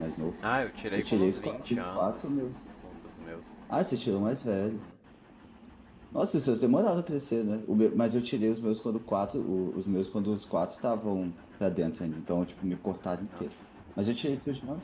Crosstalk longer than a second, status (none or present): present